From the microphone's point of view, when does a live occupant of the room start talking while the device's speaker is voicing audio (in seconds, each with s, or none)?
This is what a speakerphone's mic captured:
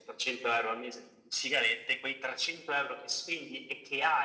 none